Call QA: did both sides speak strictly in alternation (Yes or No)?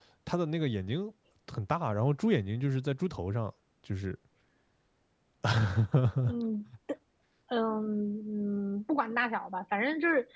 Yes